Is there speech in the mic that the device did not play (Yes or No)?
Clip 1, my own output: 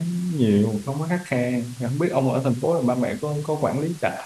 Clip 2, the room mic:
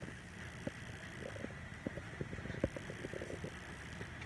No